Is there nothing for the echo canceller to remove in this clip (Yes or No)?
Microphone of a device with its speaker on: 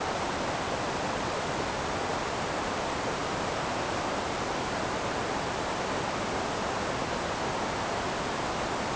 Yes